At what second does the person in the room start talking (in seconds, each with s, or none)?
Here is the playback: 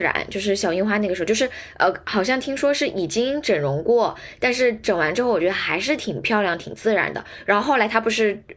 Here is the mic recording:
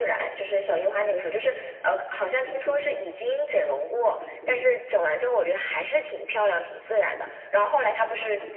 none